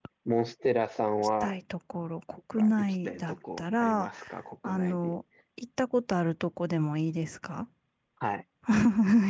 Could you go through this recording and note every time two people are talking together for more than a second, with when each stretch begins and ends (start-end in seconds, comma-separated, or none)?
2.6-4.1